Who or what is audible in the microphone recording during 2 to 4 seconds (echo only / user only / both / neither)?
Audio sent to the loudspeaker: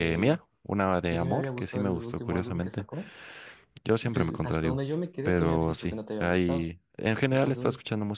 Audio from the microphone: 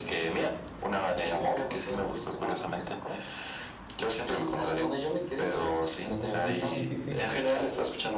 echo only